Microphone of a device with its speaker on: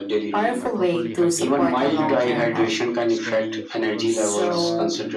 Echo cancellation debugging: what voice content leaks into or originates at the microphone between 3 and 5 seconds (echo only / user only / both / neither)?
both